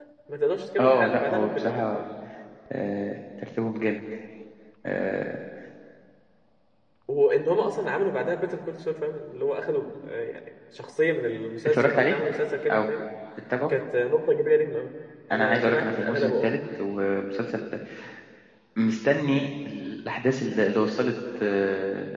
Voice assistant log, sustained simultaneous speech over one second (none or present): present